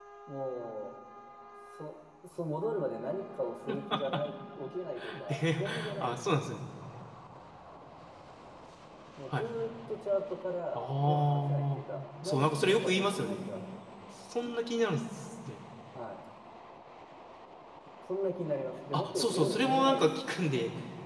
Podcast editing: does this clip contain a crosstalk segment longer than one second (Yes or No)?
Yes